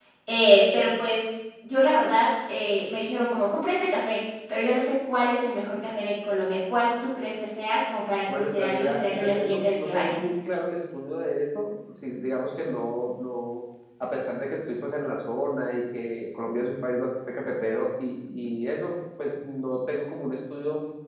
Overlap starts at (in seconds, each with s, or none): 8.3 s